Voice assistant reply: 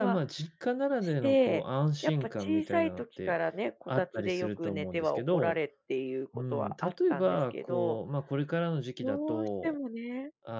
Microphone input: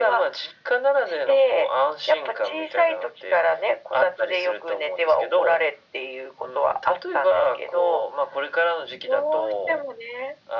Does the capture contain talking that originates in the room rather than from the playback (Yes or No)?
No